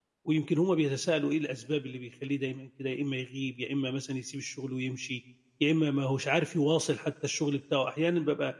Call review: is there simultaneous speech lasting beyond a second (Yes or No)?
No